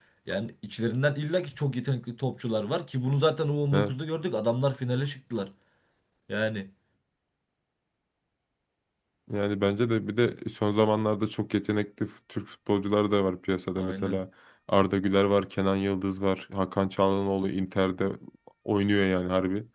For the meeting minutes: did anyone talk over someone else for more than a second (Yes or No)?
No